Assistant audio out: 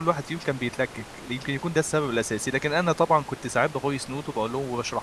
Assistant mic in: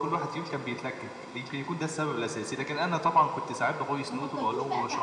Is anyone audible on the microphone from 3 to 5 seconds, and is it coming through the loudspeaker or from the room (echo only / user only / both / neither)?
both